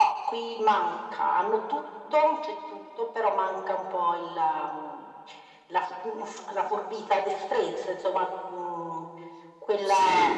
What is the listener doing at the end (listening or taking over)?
listening